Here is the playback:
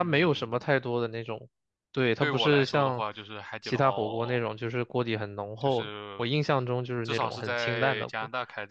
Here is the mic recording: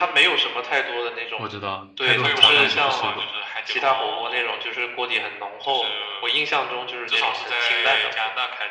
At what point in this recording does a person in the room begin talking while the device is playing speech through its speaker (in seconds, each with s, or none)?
1.3 s